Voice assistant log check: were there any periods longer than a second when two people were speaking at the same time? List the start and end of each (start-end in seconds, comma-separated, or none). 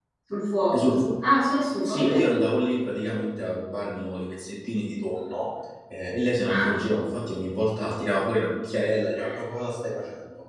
none